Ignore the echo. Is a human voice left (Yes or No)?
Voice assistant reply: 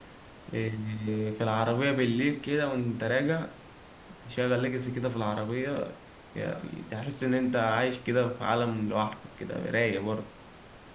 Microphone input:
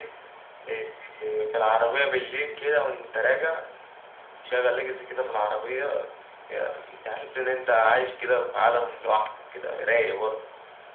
No